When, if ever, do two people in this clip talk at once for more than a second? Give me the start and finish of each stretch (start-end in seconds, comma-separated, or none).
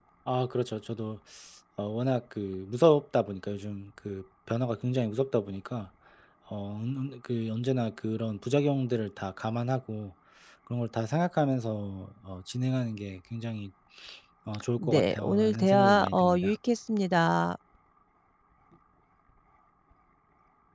14.8-16.5